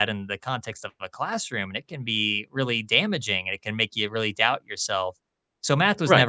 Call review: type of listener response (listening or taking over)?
listening